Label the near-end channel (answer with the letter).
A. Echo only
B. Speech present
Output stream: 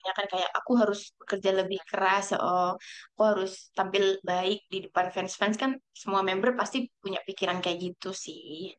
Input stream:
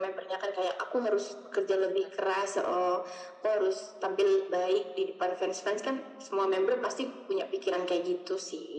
A